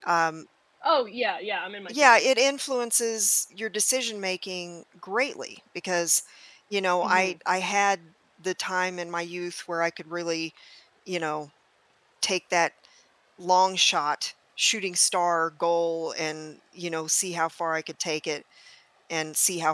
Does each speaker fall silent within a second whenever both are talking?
Yes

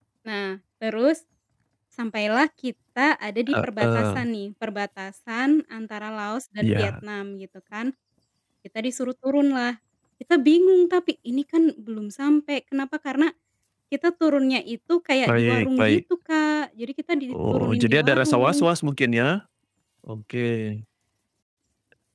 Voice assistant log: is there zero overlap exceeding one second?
No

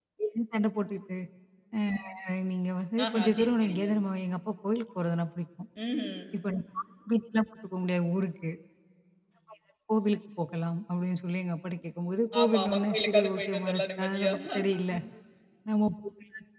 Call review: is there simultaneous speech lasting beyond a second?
Yes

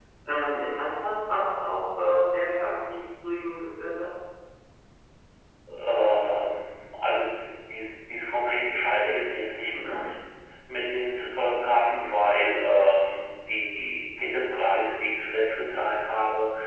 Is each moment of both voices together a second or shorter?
Yes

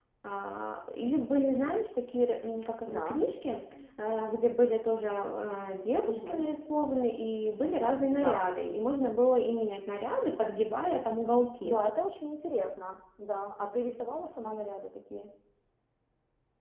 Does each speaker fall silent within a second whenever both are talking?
Yes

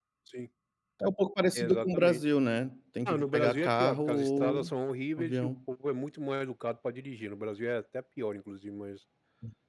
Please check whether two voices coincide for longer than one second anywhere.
Yes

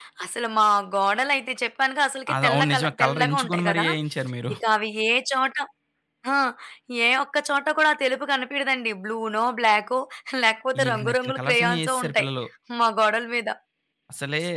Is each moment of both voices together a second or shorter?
No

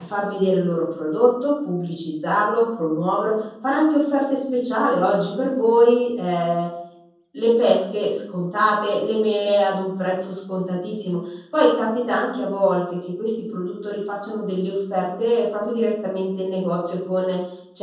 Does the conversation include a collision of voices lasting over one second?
No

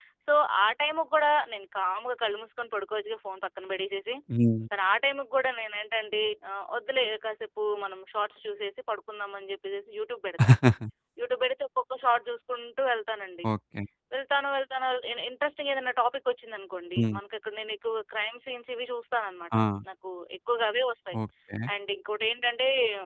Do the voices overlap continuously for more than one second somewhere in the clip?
No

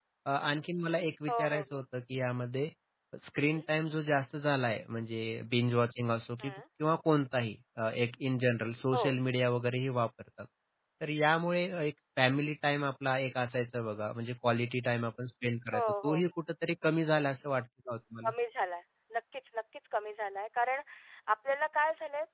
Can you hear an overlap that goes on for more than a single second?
No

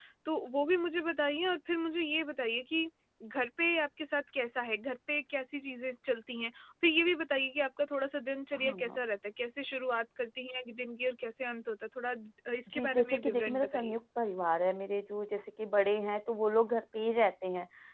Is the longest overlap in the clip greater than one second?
Yes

